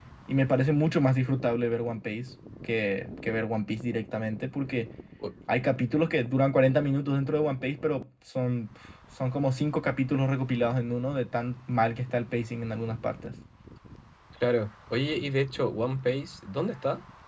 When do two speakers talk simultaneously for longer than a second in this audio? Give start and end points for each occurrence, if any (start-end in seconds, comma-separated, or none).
none